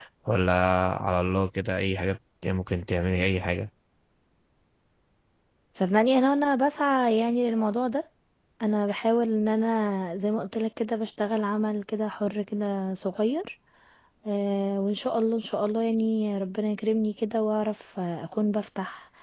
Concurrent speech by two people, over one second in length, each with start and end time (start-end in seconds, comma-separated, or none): none